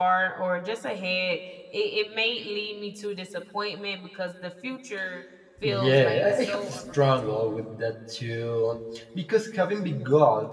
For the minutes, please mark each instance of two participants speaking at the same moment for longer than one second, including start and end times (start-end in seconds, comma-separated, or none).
5.6-7.6